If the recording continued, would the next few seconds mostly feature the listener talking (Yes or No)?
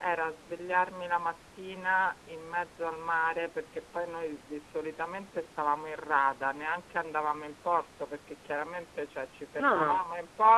No